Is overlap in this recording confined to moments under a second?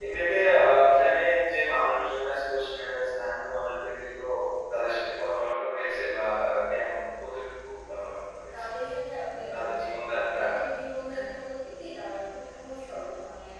Yes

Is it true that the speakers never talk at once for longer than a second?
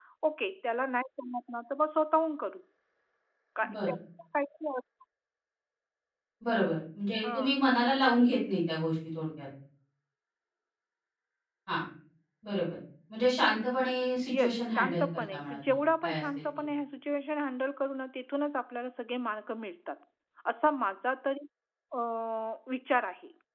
No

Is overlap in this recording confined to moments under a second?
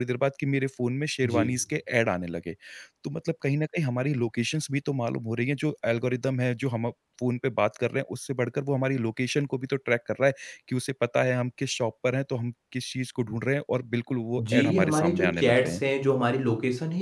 No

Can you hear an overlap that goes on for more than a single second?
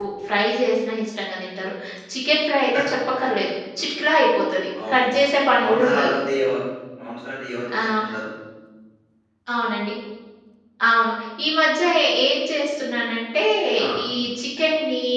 No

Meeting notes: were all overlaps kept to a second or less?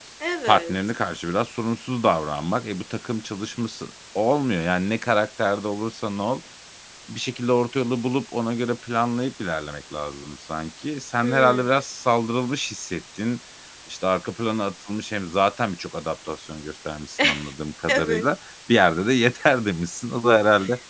Yes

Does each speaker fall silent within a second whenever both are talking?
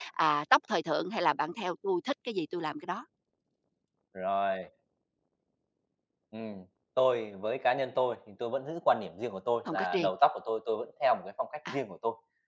Yes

